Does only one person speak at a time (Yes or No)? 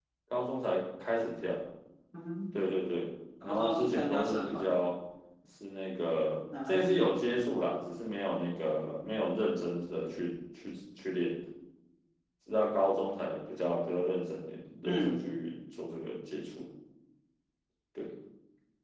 No